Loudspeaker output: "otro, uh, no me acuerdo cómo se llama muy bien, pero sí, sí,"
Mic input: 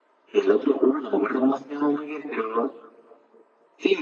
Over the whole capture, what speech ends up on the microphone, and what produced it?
echo only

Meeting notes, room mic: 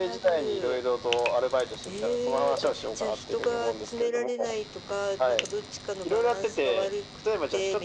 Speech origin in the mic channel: echo only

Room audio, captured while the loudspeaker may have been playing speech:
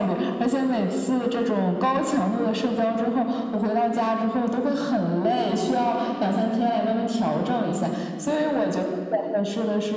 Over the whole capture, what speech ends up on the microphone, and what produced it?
echo only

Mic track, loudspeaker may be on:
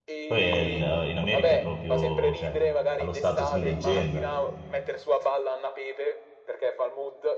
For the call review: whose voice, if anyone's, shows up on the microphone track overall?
both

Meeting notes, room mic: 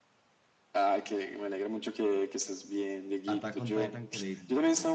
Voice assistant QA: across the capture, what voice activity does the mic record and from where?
both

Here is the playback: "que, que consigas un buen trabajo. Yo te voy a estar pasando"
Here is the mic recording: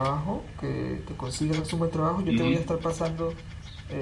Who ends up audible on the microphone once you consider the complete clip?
both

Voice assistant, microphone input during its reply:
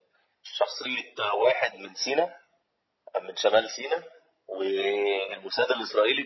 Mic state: echo only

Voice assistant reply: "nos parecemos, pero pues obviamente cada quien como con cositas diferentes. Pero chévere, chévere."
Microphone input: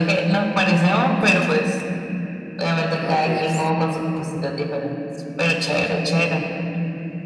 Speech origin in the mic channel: both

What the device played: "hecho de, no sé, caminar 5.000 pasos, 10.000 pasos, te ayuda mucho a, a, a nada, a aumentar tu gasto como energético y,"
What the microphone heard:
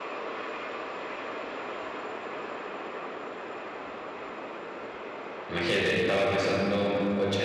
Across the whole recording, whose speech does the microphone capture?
user only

